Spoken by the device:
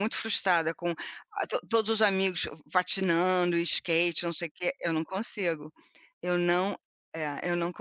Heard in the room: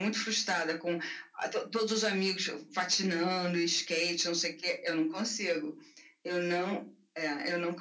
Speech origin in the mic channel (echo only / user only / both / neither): echo only